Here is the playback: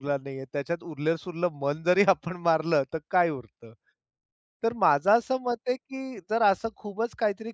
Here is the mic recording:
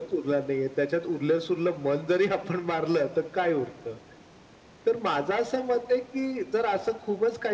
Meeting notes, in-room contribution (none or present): none